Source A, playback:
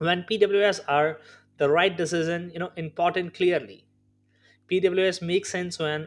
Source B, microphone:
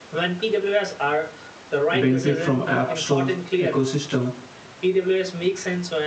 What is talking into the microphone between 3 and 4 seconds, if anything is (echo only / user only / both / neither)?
both